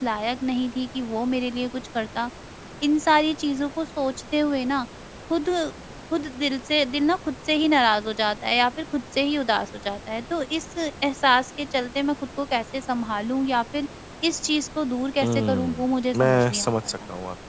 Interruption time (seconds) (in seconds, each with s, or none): 15.2 s